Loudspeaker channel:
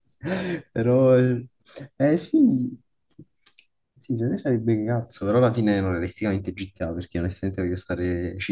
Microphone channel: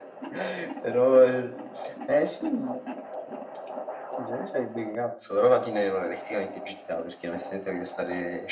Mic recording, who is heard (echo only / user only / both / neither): echo only